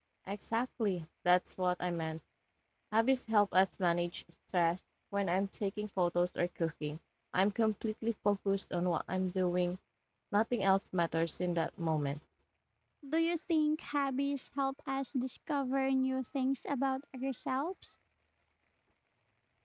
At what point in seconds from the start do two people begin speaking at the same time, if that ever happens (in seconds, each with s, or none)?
none